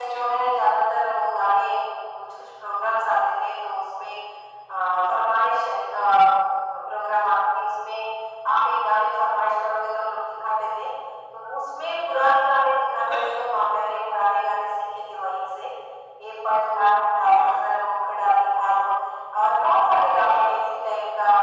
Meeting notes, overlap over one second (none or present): none